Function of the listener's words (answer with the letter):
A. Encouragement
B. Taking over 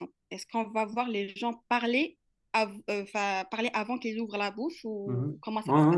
B